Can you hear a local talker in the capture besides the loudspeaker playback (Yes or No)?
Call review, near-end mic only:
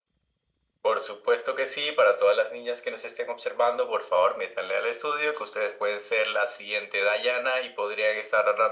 No